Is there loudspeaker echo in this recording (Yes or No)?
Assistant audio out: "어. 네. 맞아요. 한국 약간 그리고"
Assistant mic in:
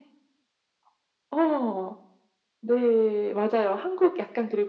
Yes